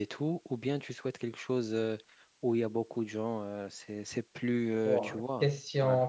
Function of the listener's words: taking over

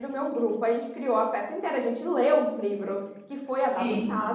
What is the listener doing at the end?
listening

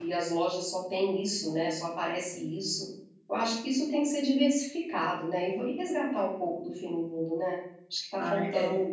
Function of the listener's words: taking over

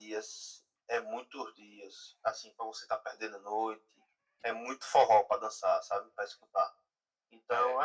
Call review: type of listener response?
listening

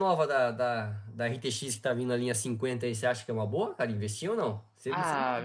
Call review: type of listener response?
taking over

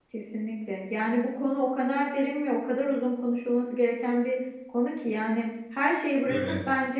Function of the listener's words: listening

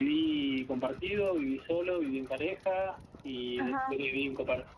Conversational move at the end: listening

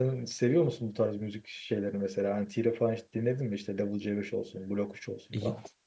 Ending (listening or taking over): taking over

